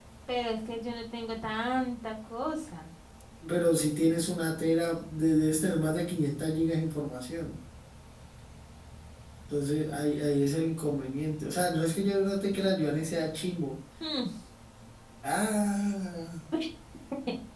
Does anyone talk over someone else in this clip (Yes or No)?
No